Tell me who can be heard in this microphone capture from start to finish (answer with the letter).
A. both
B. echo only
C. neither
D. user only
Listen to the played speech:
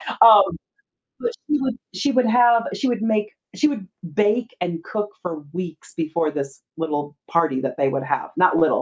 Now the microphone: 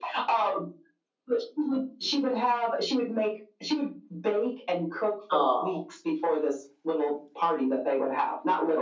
A